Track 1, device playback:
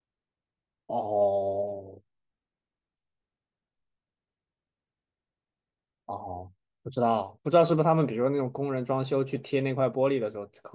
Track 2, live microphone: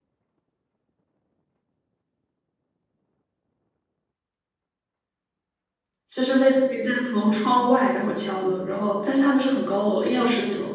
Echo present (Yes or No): No